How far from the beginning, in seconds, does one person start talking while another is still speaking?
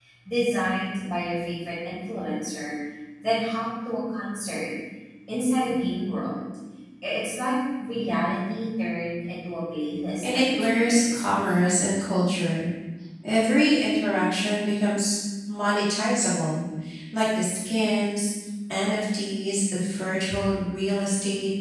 10 s

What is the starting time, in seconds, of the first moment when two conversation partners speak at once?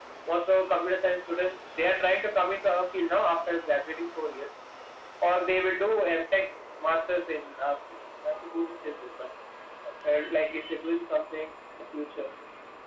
none

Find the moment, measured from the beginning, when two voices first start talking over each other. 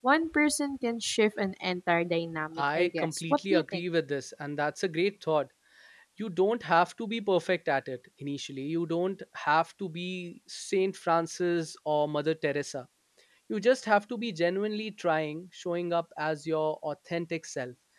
3 s

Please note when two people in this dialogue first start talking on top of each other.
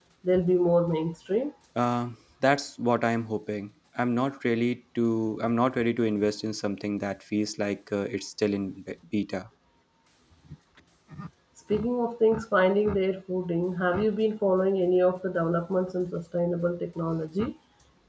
none

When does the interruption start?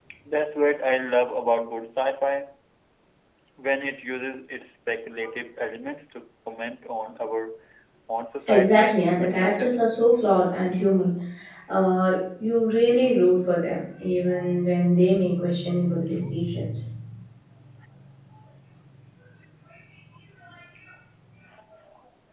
8 s

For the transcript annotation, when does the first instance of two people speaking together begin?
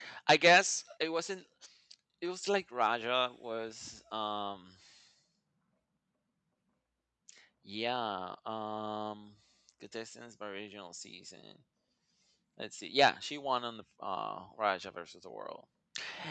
none

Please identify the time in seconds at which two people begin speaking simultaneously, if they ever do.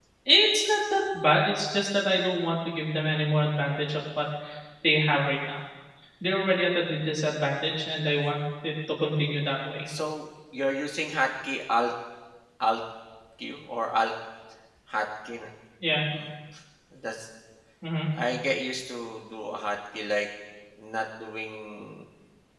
none

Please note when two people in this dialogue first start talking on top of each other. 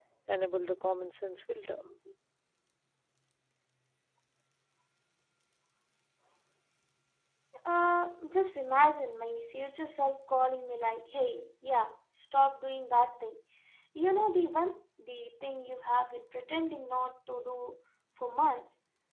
none

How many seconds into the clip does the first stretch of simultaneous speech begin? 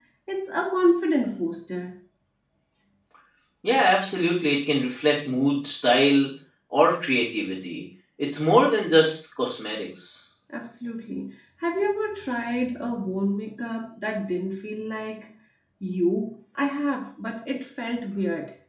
none

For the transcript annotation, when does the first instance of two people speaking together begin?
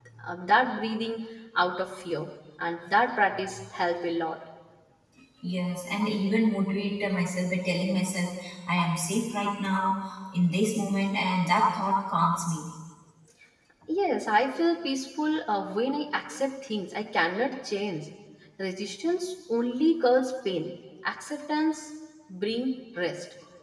none

